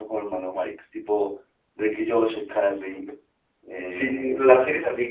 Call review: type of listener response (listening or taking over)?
taking over